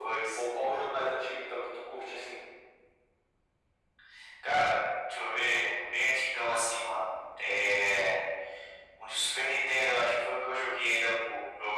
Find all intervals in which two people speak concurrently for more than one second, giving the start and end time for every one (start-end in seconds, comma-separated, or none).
none